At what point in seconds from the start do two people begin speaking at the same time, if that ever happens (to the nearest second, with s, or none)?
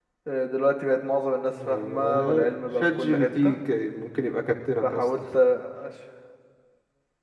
2 s